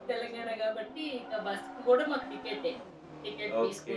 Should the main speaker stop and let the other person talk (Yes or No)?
Yes